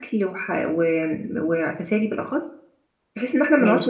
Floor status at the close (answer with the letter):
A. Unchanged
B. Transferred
A